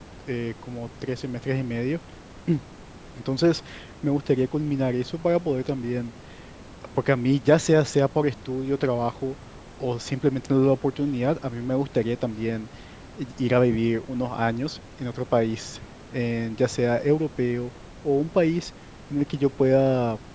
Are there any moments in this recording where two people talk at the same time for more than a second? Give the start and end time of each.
none

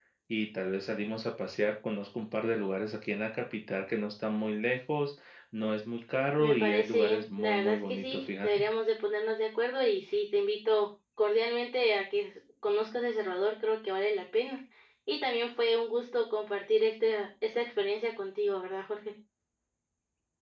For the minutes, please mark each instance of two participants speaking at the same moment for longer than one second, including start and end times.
6.4-8.6

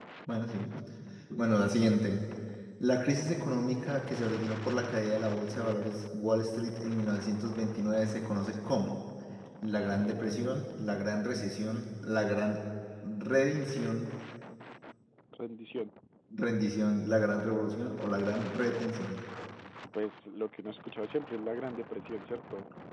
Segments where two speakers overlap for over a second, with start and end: none

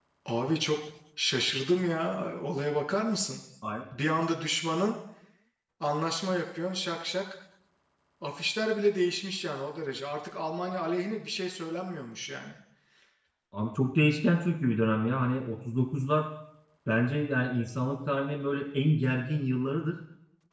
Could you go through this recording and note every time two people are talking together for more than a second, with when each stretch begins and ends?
none

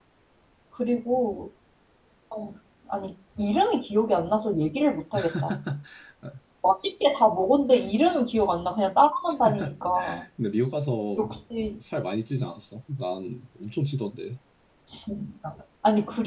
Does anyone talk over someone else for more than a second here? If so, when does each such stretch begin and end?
none

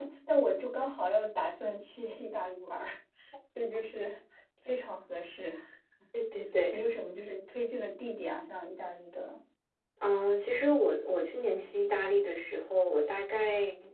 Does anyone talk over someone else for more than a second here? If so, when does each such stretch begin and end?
none

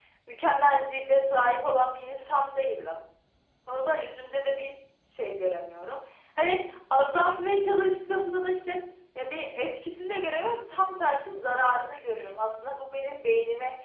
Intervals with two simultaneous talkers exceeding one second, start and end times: none

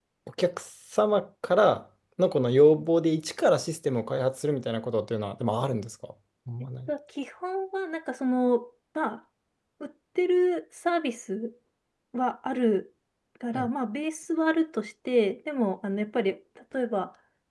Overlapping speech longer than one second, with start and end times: none

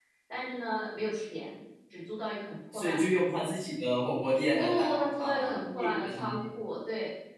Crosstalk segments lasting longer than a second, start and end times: 4.6-6.5

